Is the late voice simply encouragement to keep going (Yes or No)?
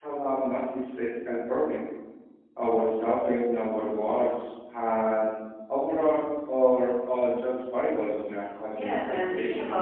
No